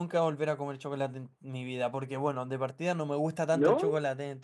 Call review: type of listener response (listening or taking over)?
listening